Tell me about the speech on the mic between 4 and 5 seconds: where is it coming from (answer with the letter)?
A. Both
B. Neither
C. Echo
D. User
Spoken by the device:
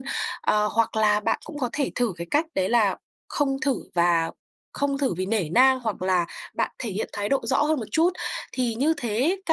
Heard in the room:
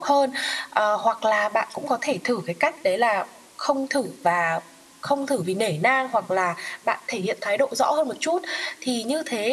C